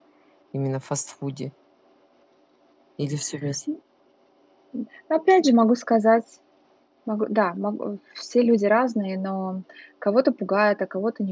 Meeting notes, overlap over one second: none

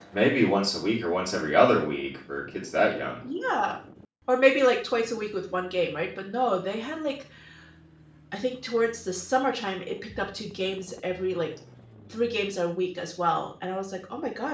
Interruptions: none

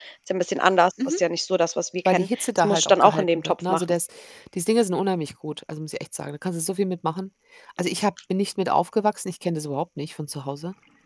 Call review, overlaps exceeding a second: present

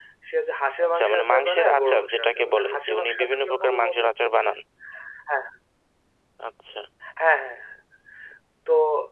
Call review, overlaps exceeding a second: present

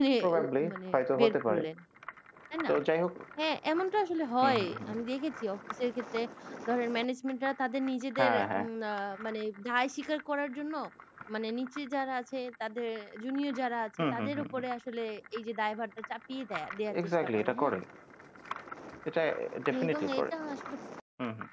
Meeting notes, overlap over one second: present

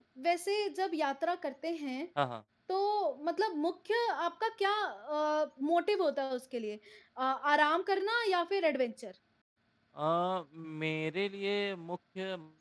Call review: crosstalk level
none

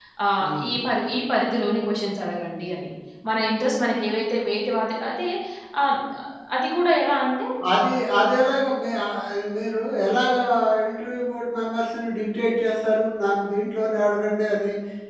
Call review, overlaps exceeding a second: none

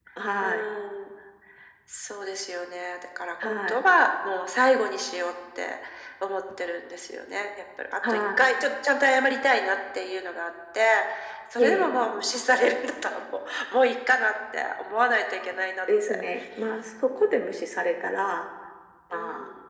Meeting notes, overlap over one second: none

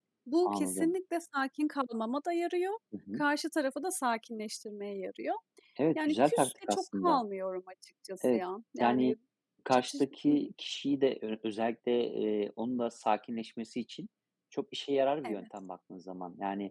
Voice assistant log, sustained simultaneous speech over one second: present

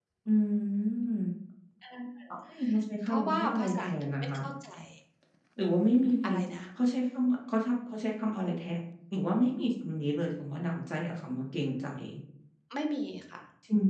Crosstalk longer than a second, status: present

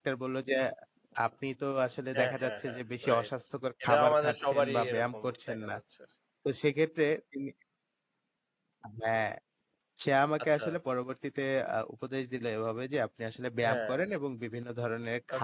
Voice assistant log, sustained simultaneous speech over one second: present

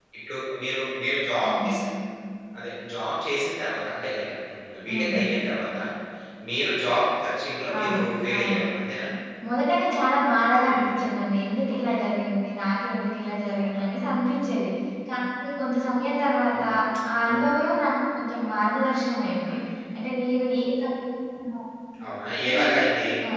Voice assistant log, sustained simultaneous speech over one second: none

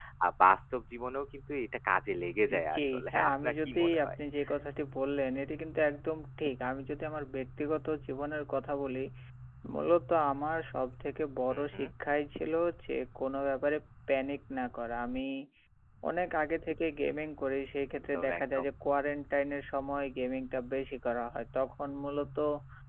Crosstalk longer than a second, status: present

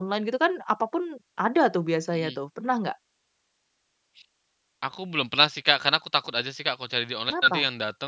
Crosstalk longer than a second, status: none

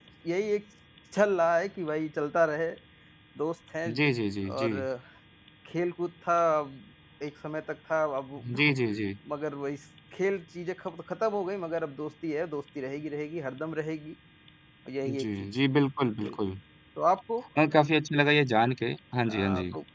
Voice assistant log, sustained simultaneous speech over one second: none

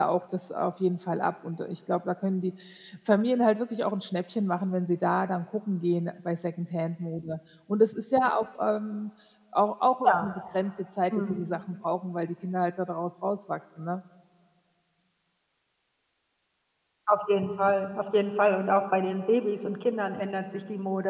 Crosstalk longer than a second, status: none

